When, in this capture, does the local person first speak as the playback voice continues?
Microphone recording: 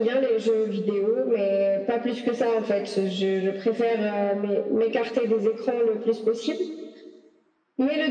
none

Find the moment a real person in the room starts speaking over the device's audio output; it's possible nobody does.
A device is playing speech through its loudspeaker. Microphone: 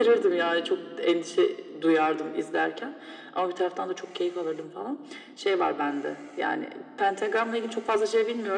none

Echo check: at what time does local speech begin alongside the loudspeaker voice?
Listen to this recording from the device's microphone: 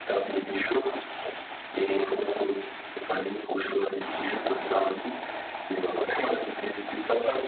none

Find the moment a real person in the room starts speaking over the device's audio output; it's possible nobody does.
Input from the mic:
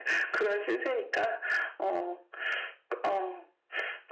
none

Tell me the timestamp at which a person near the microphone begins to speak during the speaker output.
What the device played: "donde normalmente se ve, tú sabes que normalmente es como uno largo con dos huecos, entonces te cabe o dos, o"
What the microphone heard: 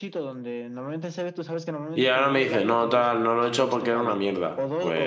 1.9 s

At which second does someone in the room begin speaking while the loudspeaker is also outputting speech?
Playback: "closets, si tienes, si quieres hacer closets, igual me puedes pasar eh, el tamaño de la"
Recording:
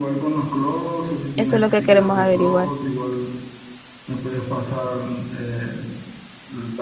1.4 s

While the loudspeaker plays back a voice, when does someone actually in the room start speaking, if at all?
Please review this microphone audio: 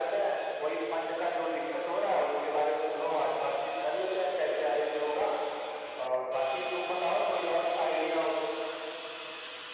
none

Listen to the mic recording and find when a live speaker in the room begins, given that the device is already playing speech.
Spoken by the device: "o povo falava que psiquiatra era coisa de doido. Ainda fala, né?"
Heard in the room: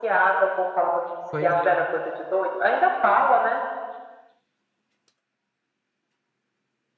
1.3 s

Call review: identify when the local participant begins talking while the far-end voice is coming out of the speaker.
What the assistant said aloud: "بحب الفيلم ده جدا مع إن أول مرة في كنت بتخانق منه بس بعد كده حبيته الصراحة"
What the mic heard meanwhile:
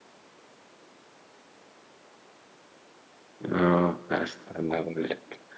3.5 s

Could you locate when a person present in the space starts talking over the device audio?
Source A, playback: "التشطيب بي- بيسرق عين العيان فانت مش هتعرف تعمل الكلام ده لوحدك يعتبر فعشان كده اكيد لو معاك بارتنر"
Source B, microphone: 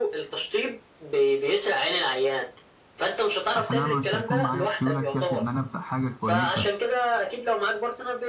3.5 s

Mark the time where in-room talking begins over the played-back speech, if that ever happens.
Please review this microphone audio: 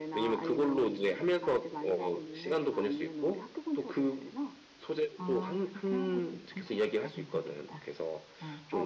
5.2 s

